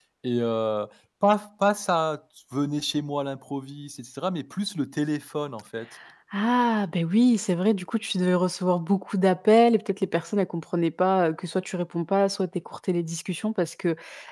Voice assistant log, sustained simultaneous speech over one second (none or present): none